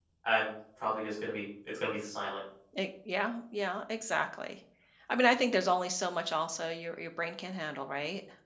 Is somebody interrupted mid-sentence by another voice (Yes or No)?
No